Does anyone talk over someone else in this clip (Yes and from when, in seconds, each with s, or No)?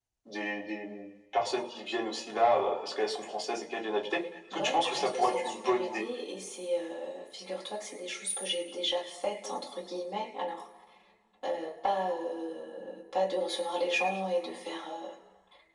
Yes, from 4.5 s